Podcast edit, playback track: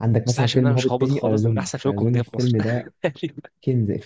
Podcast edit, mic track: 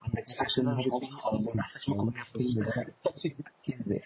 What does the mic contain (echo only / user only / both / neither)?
echo only